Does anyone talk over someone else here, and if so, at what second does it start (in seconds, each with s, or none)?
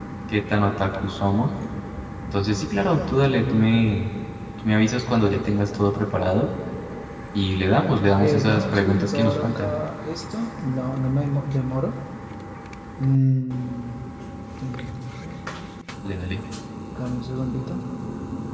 8.2 s